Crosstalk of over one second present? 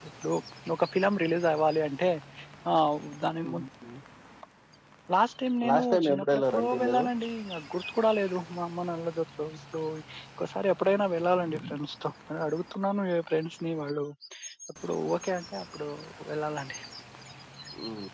Yes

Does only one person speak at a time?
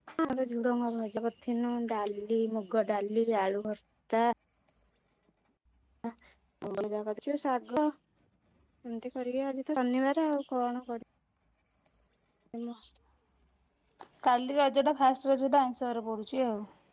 Yes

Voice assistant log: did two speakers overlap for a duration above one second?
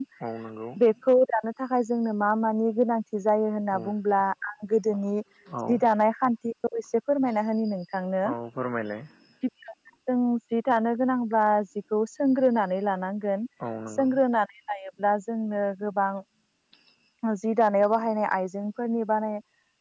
No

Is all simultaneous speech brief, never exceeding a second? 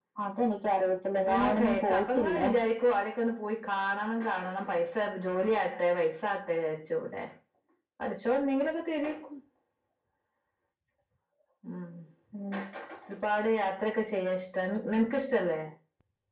No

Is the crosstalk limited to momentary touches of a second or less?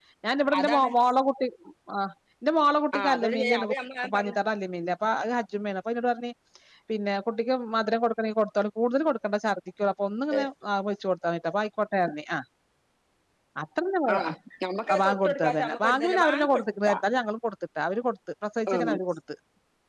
No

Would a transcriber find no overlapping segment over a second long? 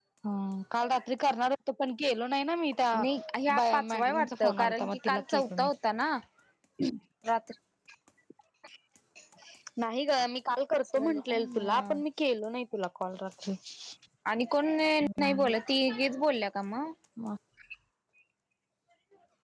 No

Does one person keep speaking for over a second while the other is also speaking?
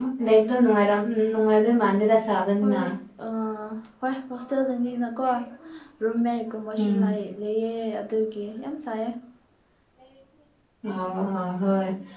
No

